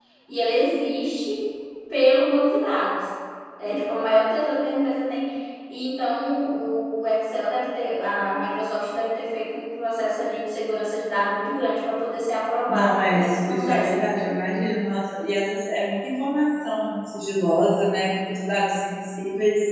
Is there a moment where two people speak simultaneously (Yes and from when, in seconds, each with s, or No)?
Yes, from 12.7 s